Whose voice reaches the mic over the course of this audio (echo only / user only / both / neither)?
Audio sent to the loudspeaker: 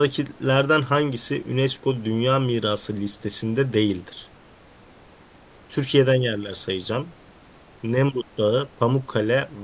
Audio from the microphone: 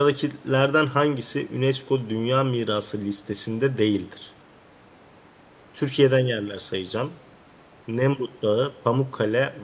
echo only